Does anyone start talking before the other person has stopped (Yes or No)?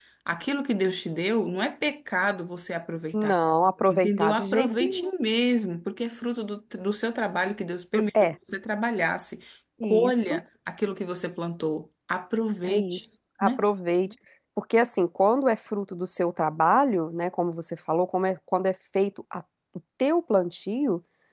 Yes